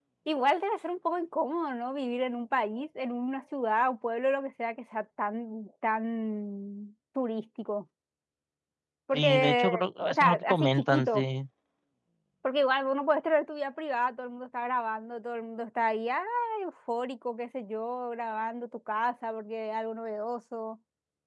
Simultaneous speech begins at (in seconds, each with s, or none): 9.1 s